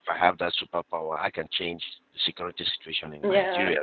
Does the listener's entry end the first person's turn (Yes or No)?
No